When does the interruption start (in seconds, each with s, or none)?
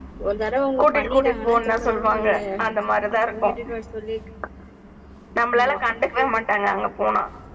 0.8 s